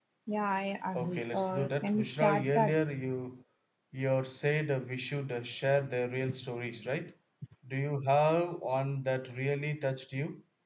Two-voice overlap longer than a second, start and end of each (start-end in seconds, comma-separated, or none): 0.9-2.8